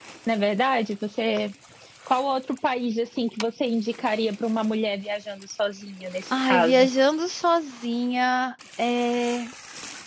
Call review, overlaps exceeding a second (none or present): none